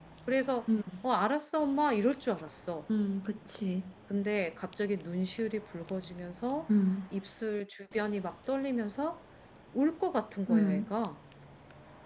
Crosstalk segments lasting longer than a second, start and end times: none

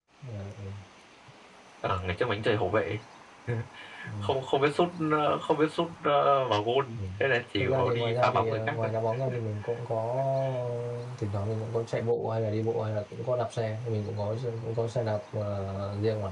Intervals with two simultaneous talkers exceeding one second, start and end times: 7.6-8.9

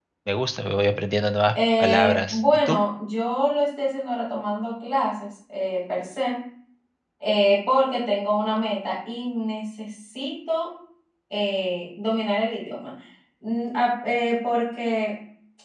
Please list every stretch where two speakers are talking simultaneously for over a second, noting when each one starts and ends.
1.6-2.8

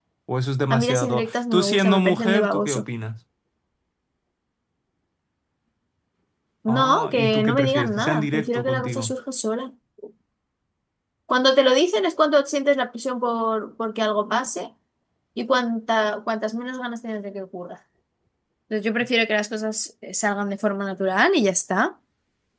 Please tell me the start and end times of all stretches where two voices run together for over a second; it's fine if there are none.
0.7-2.8, 6.7-9.1

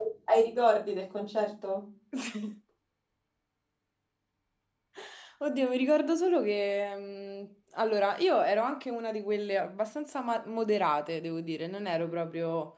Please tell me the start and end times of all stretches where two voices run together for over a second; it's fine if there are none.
none

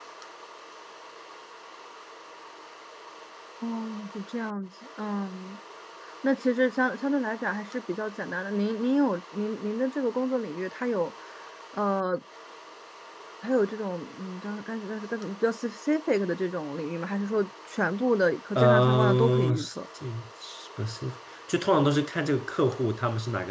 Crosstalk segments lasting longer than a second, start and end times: 18.6-19.8

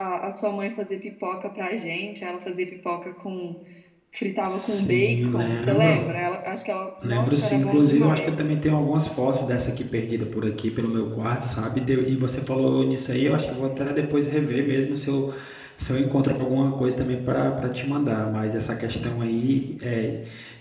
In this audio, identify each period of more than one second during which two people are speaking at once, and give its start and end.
4.4-6.0, 7.0-8.3

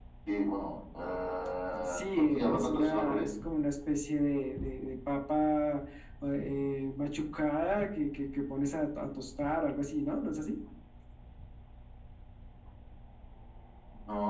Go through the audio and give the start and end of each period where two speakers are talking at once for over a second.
1.8-3.3

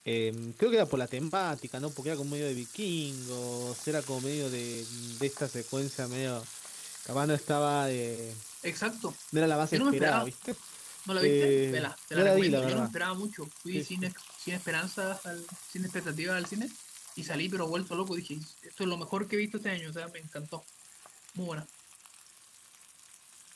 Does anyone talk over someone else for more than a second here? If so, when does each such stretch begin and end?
11.2-12.9

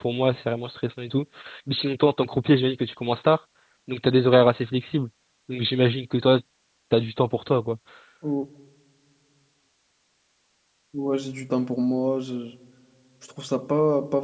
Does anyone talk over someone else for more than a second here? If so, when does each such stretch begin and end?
none

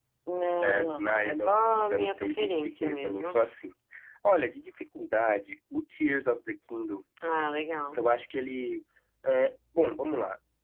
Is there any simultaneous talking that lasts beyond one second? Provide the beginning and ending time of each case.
0.6-3.3

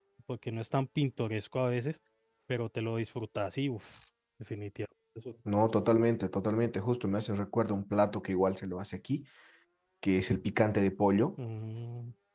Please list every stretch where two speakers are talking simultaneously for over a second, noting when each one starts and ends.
none

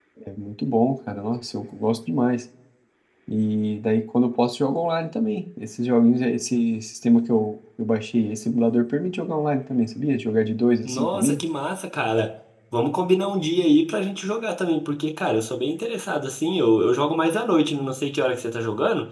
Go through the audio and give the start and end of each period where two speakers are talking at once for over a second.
none

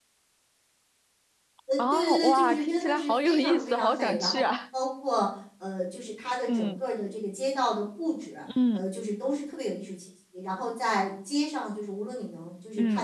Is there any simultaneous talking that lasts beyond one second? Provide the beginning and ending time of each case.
1.8-4.5

